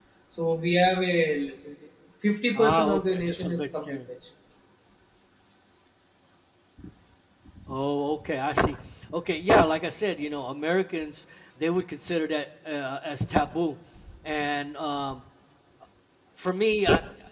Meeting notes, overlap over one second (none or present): present